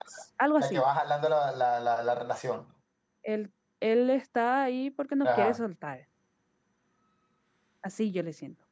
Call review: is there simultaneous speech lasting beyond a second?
No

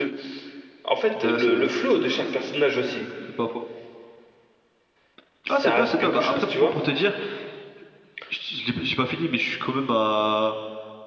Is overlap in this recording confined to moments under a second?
No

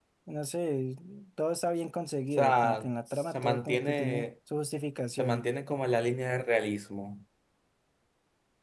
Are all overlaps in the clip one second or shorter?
No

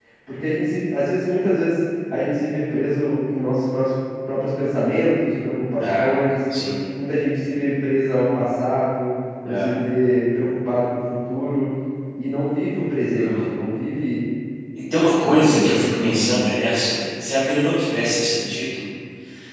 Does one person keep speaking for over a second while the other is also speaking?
Yes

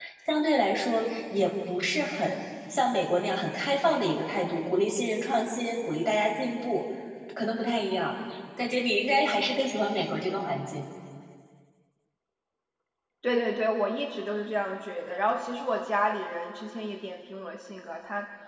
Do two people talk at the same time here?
No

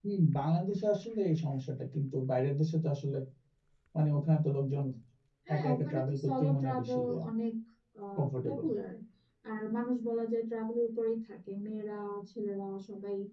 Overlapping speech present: Yes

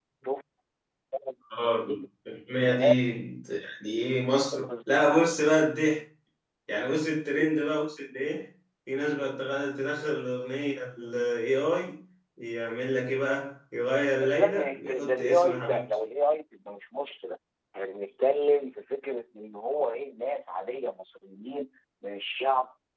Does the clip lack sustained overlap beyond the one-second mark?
No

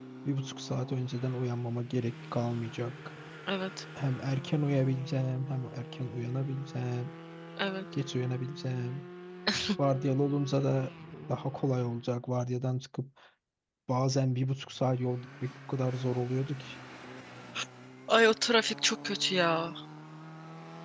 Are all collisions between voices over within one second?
Yes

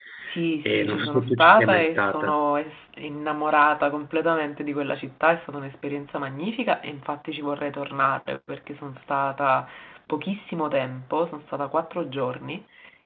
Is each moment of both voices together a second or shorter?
No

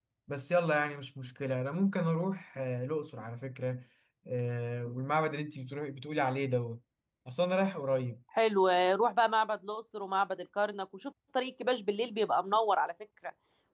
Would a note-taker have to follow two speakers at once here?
No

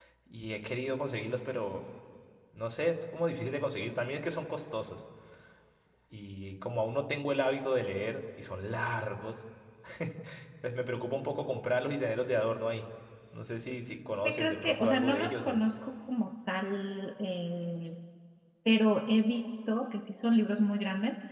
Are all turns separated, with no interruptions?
No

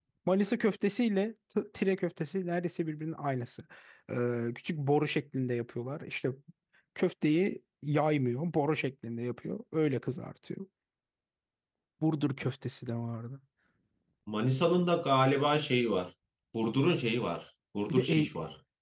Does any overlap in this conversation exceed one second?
No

